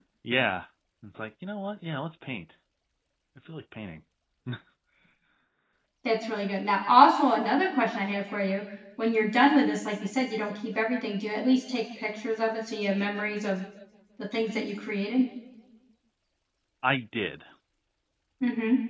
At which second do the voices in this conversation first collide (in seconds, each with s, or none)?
none